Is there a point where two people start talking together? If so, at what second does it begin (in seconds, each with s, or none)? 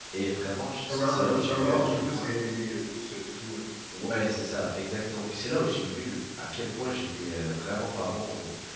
0.9 s